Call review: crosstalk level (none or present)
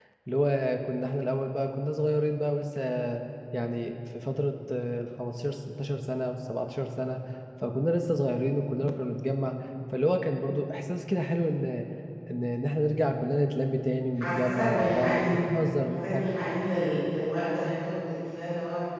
present